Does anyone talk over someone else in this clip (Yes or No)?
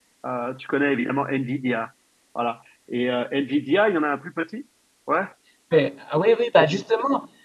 No